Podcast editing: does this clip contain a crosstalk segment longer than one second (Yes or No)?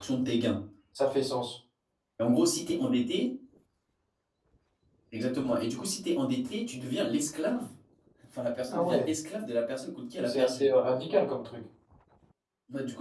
No